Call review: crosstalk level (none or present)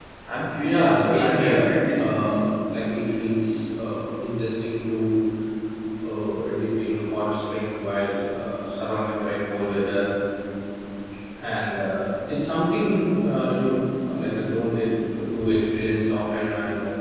present